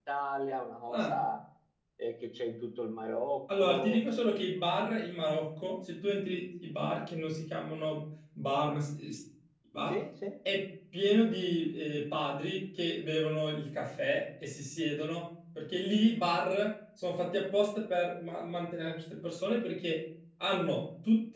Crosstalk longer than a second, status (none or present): none